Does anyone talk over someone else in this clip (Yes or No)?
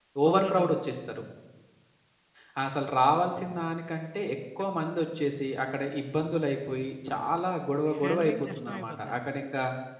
Yes